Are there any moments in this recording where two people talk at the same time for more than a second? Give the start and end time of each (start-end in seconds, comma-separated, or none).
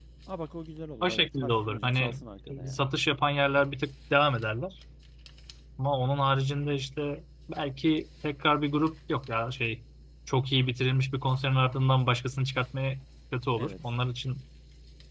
1.0-2.9